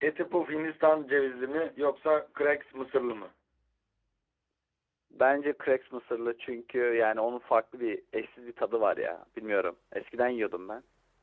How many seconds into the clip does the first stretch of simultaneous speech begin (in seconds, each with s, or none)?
none